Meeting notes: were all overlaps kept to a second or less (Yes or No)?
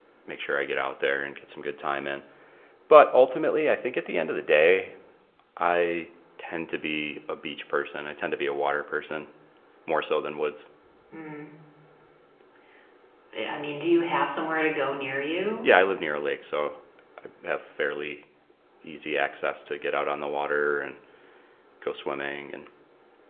Yes